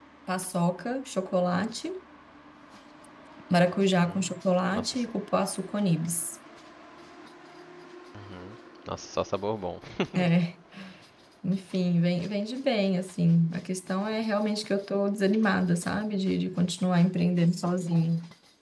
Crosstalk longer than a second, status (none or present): none